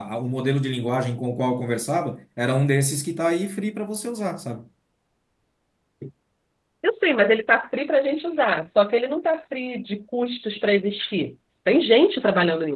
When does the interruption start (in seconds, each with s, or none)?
none